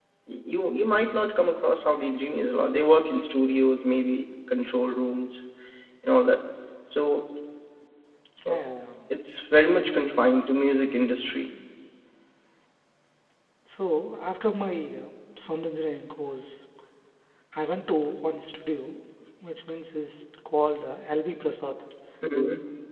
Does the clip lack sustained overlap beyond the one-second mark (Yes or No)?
Yes